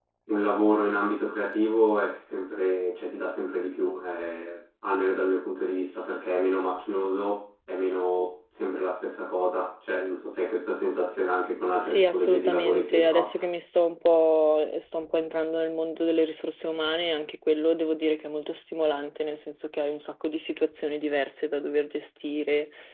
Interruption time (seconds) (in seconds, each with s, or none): 11.8 s